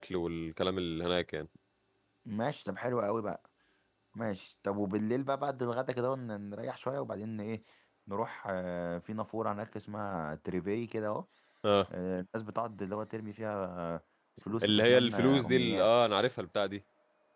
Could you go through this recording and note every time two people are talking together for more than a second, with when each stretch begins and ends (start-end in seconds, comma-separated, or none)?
14.6-15.9